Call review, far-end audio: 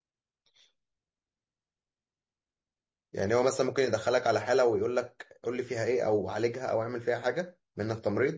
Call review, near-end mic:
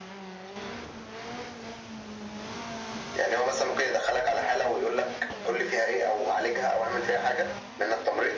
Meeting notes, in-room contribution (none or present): none